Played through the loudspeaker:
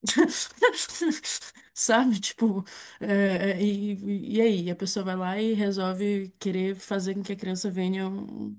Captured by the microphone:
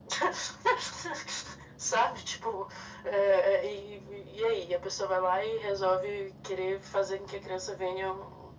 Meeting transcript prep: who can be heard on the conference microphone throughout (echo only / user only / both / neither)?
echo only